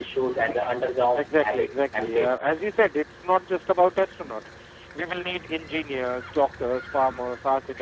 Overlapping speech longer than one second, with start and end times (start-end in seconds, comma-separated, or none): 1.2-2.4